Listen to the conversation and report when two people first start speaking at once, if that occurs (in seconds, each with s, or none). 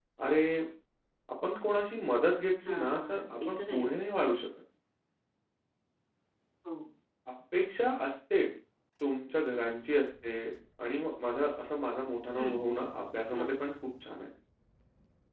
2.7 s